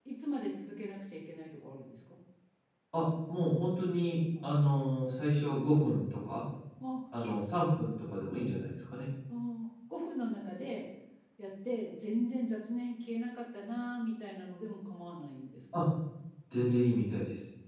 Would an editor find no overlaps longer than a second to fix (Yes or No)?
Yes